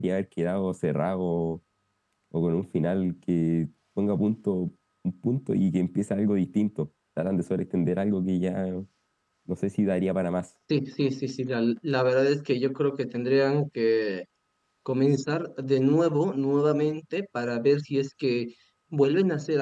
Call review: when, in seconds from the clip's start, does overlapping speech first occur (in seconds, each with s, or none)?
none